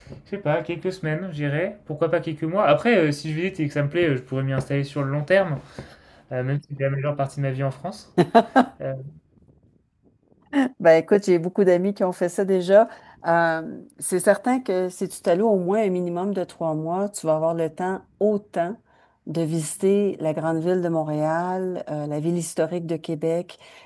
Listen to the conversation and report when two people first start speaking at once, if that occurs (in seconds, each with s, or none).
none